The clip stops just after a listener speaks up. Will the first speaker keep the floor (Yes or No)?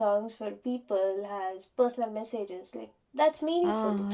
No